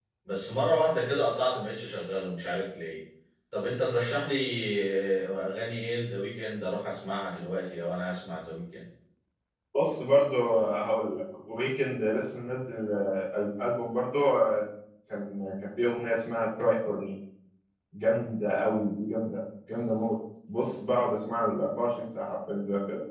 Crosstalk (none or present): none